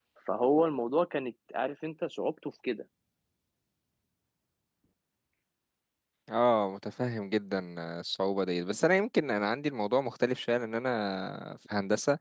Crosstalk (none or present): none